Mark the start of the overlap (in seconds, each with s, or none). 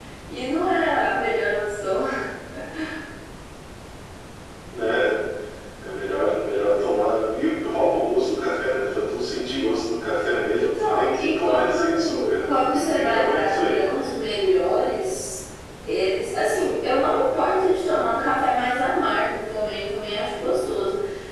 10.6 s